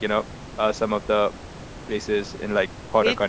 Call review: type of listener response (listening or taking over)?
taking over